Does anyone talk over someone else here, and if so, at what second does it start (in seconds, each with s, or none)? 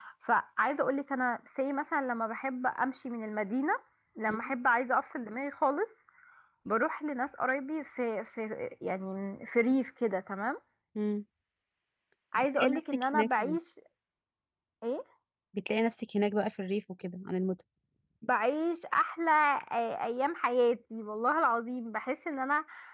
12.4 s